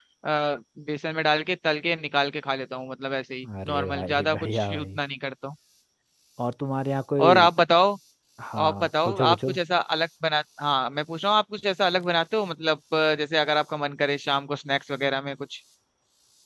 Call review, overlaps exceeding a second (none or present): present